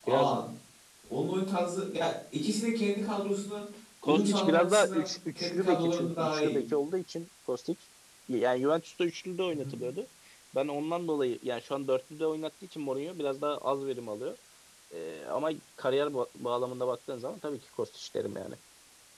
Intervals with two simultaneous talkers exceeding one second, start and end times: 4.0-6.6

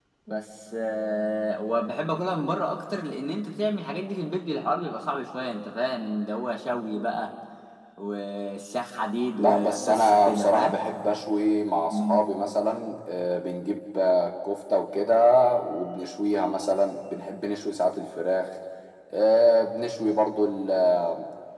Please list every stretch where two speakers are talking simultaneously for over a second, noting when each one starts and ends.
9.4-10.8

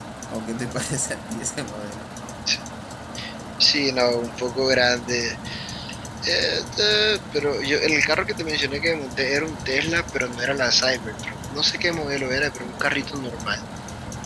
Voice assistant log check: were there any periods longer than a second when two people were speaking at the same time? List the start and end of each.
none

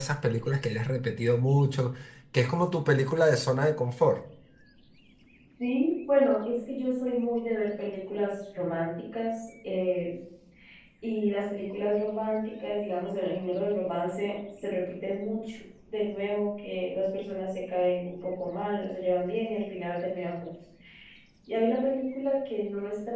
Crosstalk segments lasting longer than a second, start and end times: none

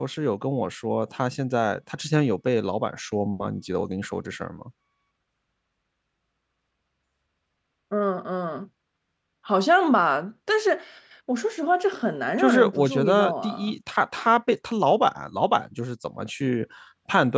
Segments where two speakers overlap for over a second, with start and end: 12.4-13.7

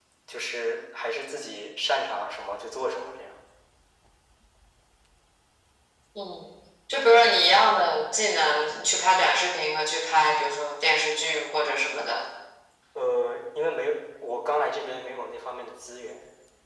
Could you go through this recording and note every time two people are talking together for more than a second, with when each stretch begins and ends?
none

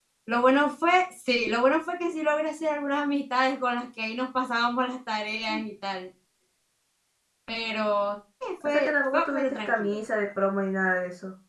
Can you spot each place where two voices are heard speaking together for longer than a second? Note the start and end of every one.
8.7-10.0

